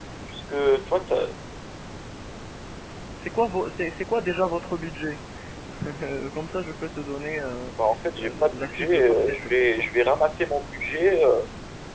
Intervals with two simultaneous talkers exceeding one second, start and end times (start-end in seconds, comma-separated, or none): 8.2-9.8